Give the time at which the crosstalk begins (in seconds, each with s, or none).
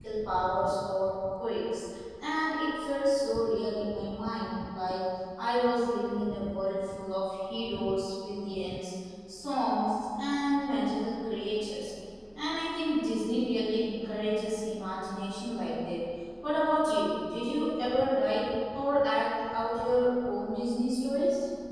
none